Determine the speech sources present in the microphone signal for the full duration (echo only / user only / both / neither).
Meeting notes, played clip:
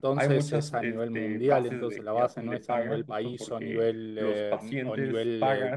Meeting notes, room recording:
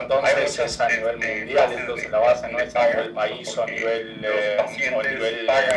echo only